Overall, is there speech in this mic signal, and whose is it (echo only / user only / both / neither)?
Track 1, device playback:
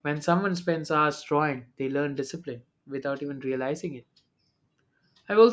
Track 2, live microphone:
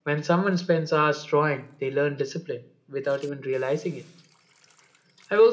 echo only